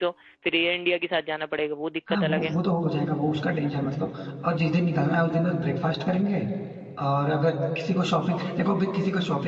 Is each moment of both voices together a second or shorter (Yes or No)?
Yes